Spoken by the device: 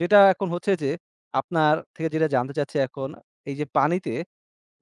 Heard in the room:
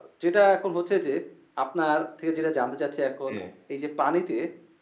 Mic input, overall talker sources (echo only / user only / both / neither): both